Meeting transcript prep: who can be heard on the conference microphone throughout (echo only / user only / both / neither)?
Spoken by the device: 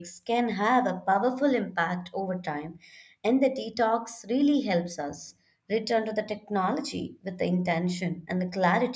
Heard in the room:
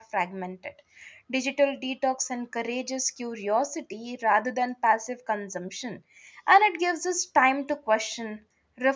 user only